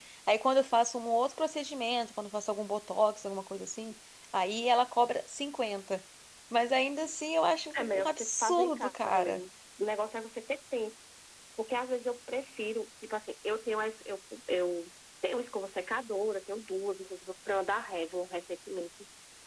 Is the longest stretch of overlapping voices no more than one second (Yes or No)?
No